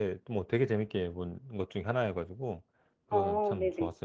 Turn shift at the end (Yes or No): Yes